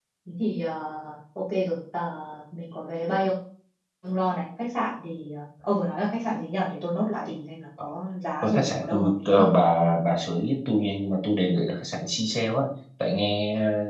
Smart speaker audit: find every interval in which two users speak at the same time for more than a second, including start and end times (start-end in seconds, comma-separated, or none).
8.4-9.6